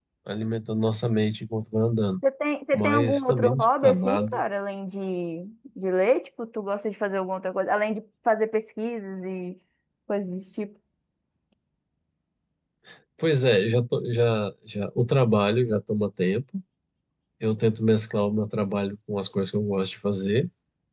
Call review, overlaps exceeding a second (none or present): present